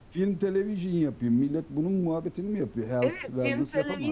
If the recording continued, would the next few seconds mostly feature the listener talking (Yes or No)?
Yes